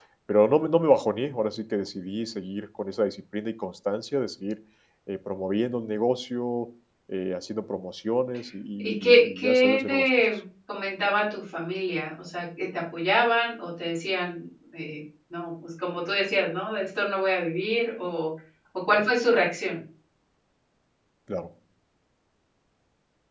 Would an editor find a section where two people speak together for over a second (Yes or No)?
Yes